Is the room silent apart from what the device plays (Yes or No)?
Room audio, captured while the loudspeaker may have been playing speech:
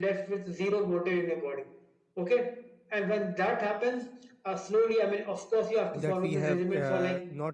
No